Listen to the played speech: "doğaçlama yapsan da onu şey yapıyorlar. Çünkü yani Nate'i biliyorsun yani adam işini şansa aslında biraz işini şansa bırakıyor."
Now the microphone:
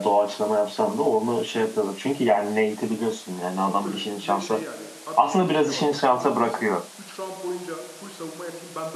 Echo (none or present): present